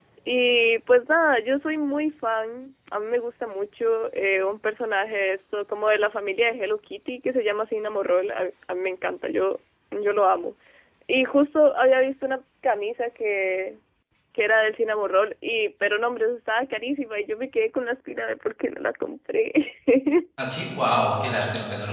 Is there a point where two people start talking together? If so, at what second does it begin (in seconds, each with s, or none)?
none